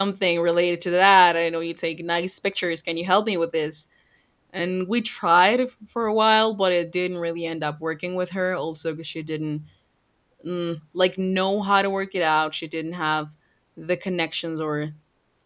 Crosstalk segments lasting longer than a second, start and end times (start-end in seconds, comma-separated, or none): none